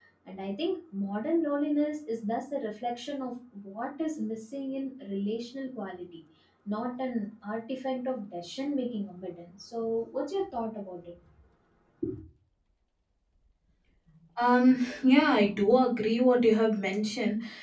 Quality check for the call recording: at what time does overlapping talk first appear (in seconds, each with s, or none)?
none